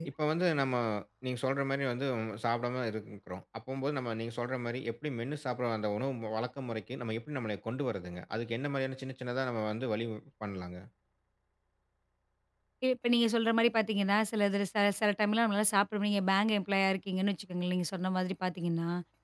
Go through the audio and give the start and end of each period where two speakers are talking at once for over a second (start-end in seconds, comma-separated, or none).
none